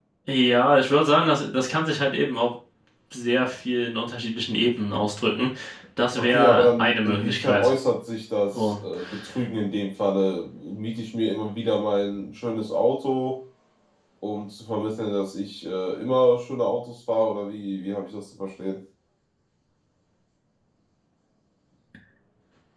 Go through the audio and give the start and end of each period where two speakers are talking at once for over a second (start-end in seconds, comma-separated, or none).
6.2-7.7